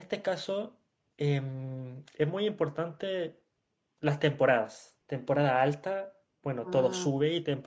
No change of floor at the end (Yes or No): Yes